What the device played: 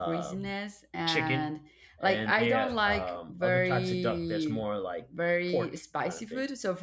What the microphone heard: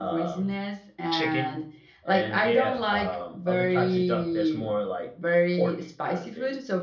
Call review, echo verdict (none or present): present